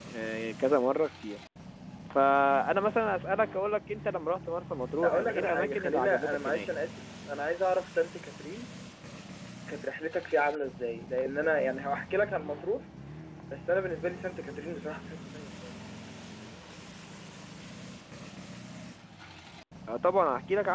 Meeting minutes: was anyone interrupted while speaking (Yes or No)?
Yes